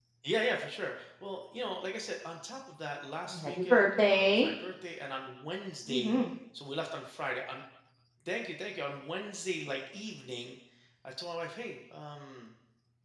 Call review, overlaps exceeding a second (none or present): present